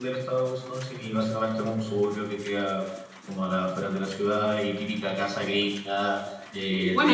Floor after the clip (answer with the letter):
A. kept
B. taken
B